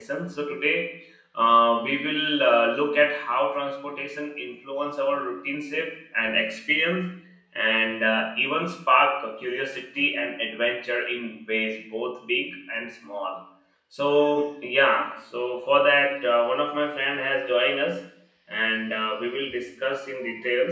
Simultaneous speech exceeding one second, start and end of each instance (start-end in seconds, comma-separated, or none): none